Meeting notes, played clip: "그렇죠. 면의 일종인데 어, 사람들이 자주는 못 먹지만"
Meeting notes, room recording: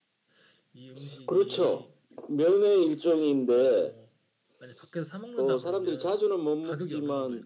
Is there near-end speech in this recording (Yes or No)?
Yes